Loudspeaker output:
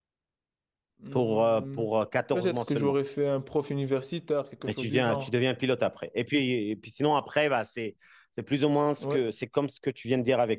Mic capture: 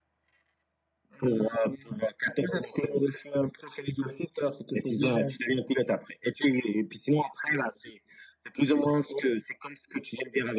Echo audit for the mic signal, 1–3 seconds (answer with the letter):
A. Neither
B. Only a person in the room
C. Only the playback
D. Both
C